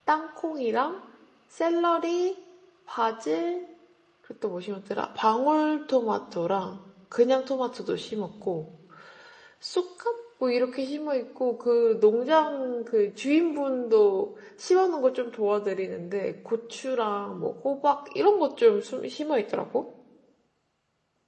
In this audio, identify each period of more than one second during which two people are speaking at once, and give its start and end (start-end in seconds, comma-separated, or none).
none